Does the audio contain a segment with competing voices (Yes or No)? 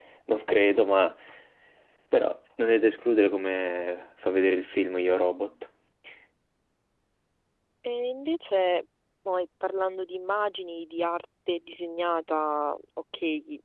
No